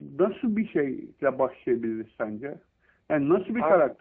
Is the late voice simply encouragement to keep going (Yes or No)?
Yes